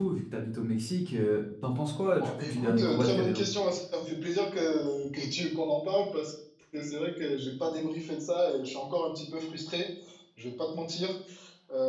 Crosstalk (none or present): present